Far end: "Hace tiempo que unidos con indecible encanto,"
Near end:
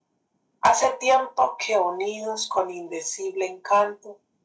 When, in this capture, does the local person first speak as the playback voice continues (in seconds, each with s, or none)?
none